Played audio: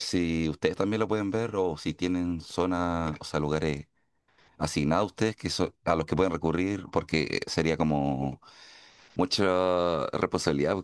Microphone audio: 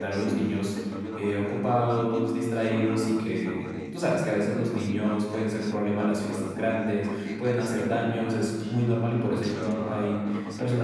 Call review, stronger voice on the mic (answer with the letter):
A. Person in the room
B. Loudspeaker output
A